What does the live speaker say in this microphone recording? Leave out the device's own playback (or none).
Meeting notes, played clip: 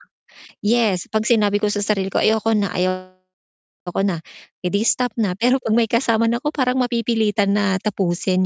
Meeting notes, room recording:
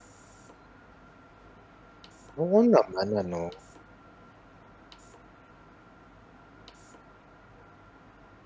Oo naman ano.